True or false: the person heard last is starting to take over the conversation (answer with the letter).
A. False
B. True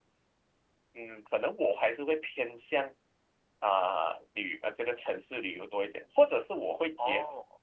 A